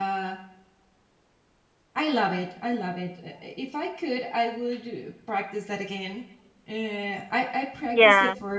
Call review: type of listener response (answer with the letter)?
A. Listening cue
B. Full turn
A